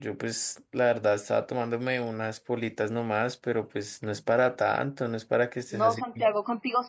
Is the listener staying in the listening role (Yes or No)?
No